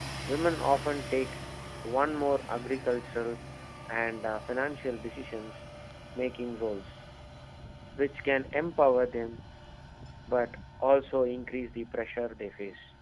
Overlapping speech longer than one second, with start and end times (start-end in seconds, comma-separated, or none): none